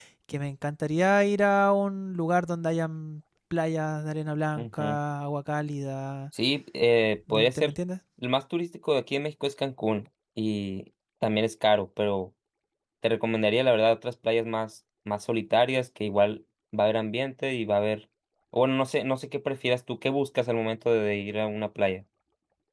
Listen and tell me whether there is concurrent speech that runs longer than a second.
No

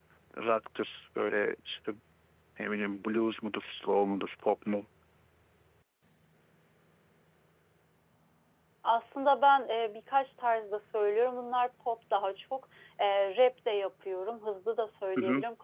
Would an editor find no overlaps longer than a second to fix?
Yes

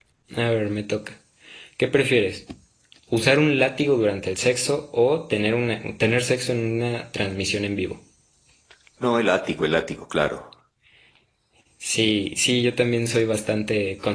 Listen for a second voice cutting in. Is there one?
No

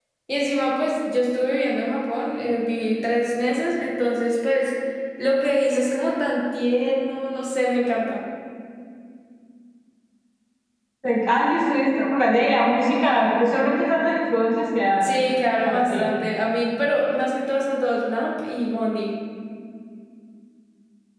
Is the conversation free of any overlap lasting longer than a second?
Yes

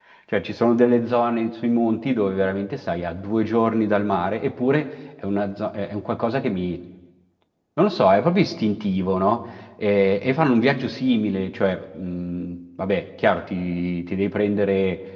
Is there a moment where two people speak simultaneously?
No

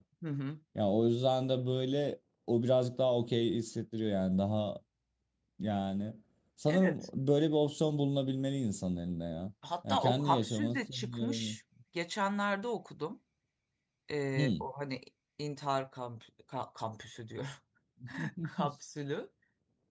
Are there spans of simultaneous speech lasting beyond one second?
Yes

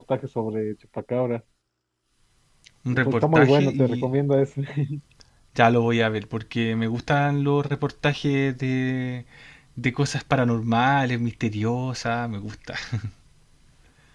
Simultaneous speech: Yes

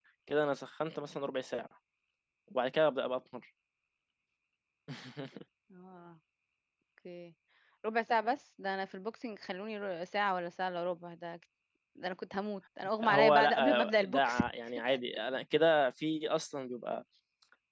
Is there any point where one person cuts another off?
Yes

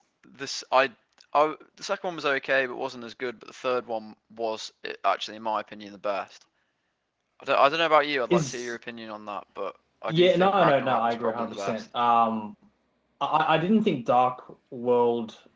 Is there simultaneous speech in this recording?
Yes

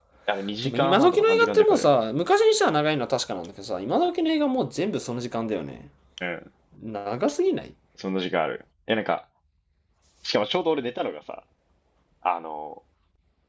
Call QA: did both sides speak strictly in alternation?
No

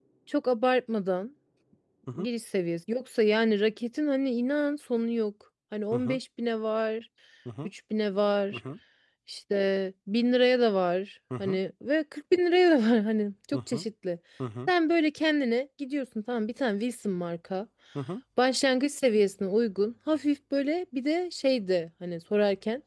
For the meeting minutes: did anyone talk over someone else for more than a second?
No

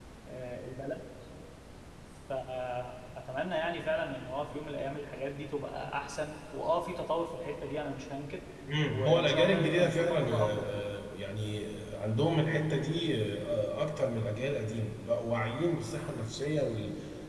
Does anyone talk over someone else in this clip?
Yes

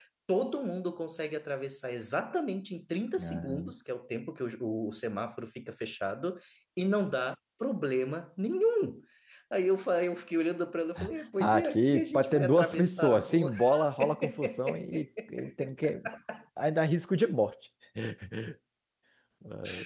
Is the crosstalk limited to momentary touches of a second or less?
No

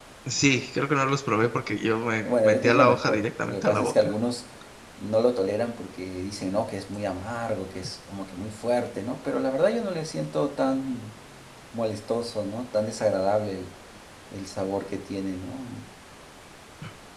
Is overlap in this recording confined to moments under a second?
No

